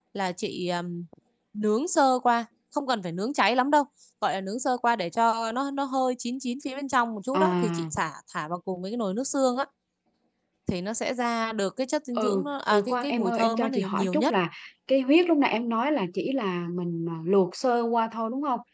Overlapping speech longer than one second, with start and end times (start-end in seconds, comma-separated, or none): 12.2-14.3